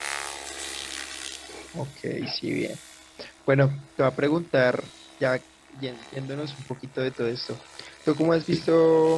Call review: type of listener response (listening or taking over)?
listening